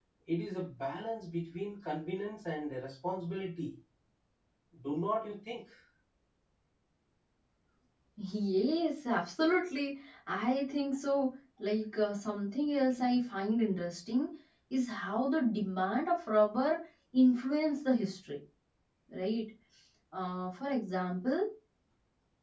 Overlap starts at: none

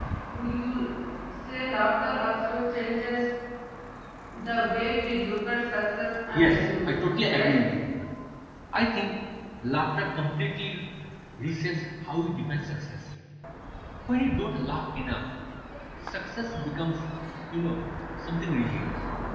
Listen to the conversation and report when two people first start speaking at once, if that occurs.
6 s

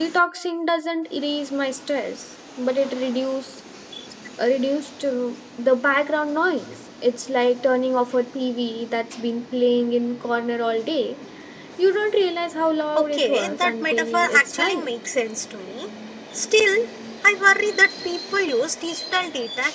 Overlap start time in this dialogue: 13 s

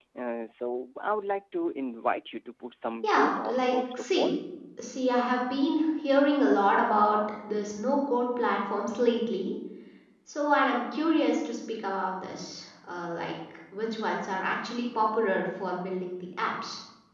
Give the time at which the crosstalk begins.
3 s

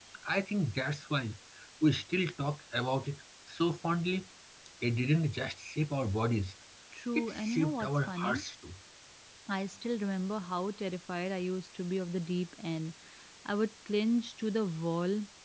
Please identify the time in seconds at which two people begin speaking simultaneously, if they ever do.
7 s

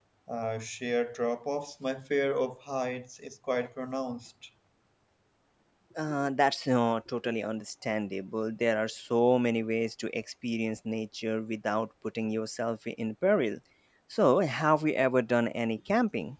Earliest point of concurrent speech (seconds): none

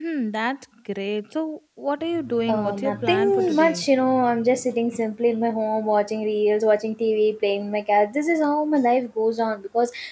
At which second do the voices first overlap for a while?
2 s

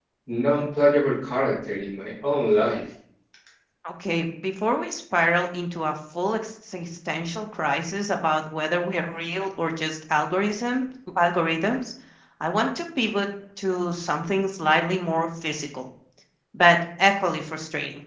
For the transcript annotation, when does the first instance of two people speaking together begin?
none

